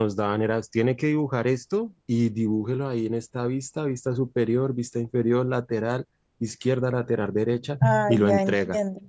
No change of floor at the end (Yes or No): No